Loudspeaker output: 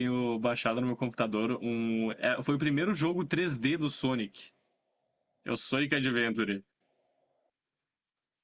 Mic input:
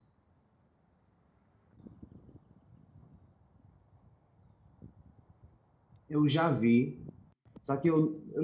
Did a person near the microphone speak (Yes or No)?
Yes